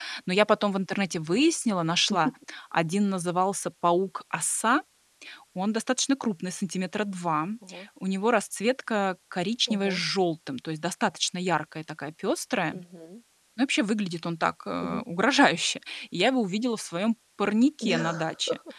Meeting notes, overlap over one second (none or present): none